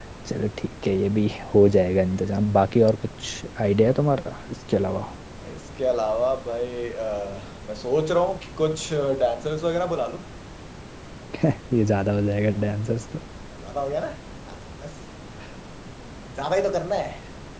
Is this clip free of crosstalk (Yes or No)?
Yes